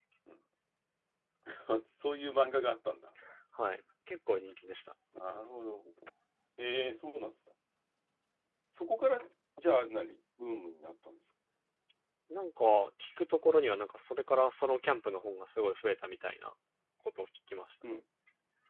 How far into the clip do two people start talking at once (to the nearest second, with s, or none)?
none